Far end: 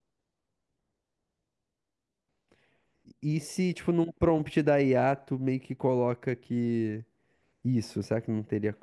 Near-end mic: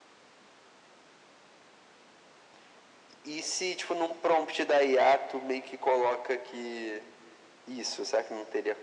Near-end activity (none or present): none